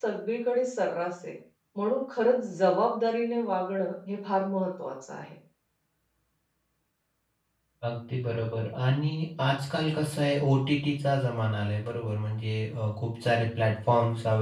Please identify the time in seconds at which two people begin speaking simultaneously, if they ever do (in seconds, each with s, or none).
none